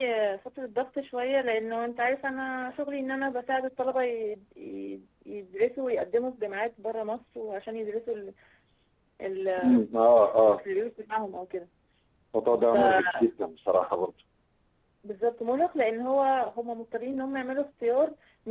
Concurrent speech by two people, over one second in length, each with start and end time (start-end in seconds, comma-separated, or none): none